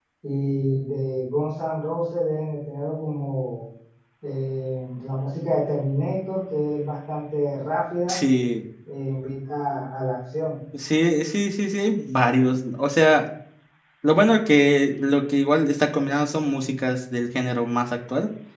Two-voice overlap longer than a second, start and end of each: none

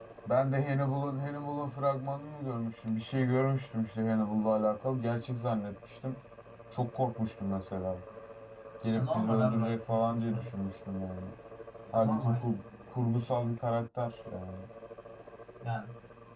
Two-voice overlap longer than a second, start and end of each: 9.0-10.5

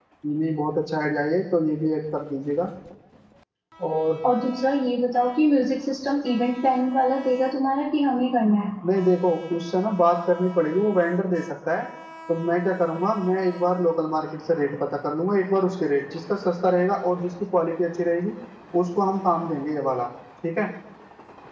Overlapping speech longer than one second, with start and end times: none

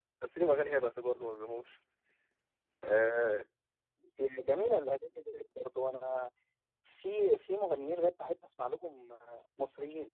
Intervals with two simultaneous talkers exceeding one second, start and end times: none

